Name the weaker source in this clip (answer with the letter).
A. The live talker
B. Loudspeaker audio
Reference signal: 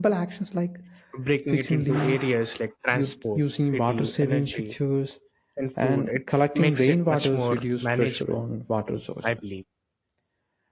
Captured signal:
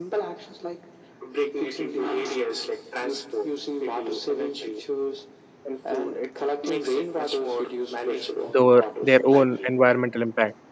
B